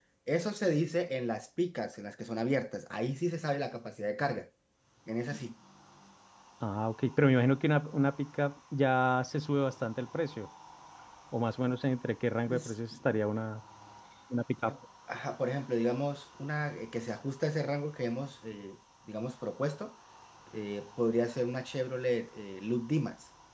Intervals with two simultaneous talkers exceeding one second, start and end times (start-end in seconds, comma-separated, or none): none